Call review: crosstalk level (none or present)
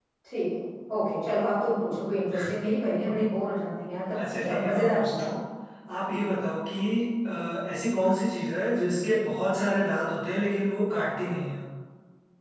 present